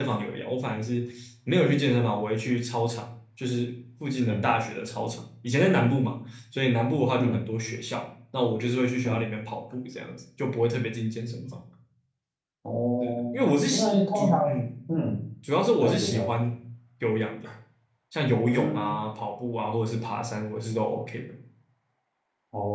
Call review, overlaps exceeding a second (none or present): present